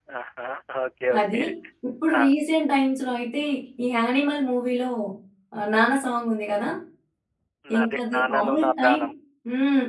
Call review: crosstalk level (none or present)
present